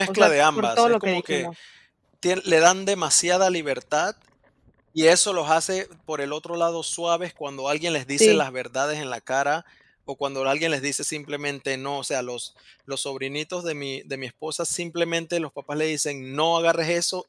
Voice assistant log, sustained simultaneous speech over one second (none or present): present